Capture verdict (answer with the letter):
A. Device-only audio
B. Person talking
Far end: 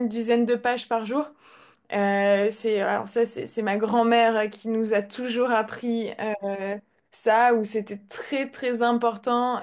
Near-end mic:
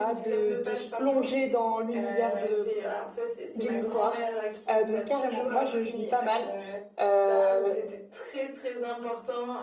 B